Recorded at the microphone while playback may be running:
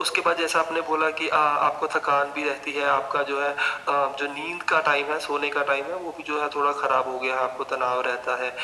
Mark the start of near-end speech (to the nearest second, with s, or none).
none